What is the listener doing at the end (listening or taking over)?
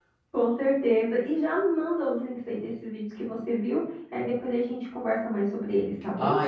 taking over